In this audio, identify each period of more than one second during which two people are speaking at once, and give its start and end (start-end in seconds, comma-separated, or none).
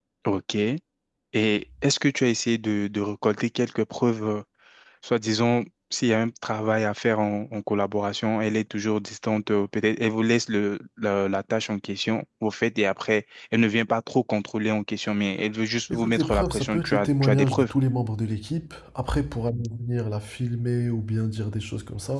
15.9-17.7